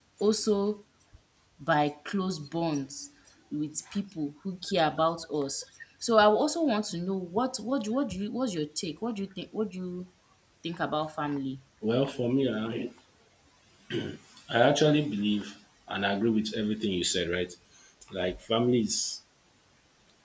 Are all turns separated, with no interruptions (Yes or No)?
Yes